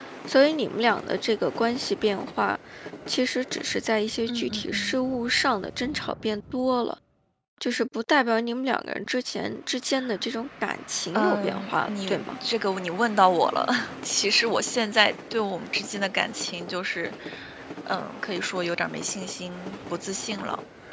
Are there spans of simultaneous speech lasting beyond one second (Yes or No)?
Yes